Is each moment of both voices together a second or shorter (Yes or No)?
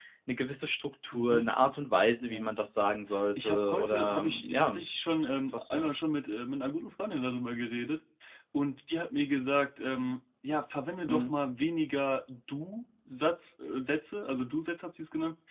No